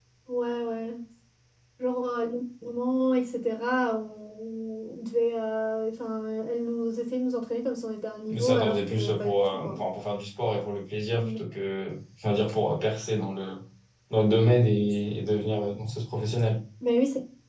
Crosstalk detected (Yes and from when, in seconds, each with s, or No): Yes, from 8.3 s